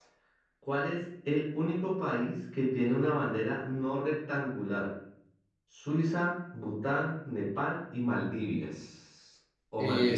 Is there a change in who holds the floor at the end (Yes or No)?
Yes